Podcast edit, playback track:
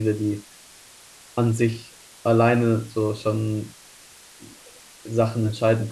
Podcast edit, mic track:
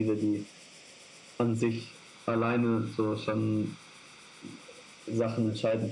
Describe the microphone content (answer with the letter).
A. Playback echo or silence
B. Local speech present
A